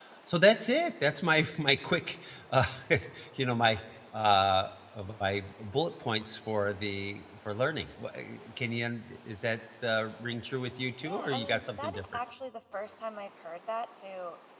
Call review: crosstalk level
present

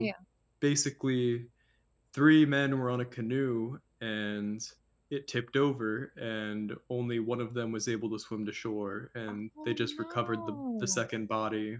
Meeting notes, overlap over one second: present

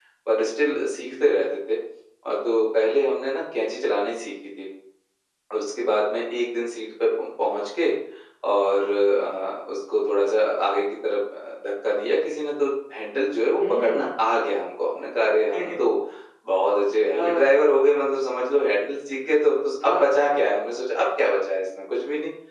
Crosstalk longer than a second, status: none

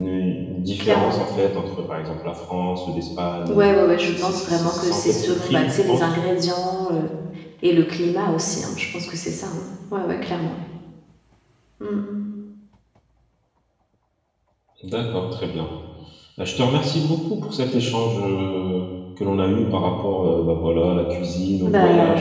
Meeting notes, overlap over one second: present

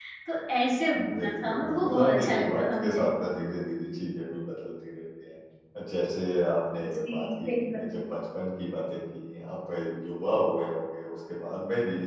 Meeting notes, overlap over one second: present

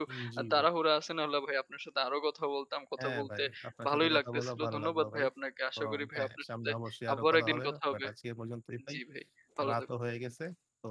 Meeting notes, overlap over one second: present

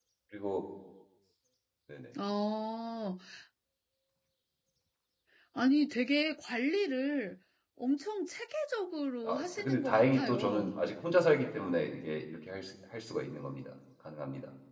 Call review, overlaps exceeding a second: present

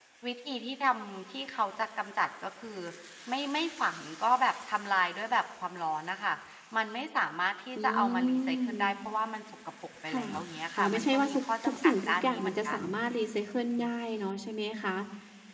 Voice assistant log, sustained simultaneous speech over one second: present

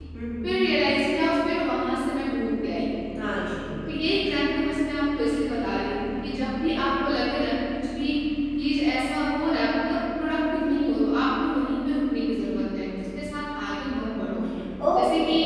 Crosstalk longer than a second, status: none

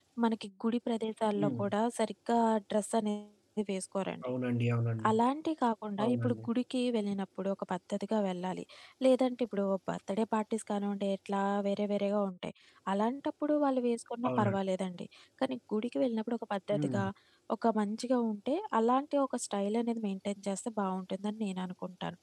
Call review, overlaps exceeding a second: none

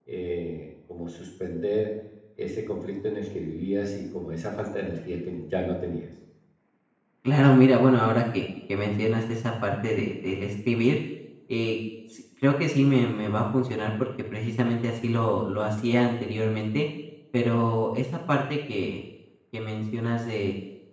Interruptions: none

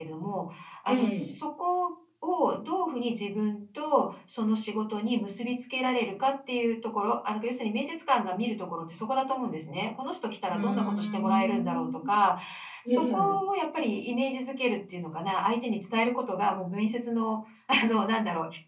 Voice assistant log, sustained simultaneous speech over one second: present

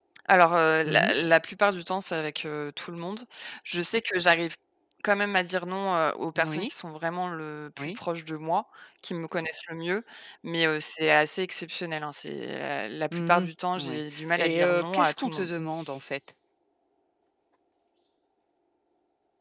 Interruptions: present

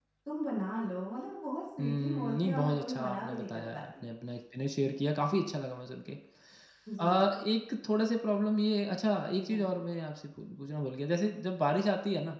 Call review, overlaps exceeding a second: present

